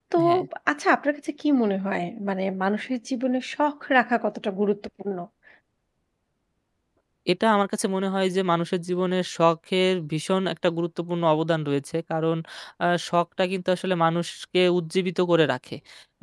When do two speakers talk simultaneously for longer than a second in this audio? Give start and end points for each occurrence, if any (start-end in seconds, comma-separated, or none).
none